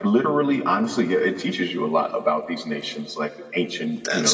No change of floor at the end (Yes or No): Yes